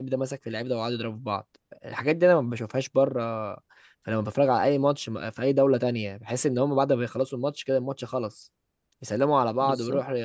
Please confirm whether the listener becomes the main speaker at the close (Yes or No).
No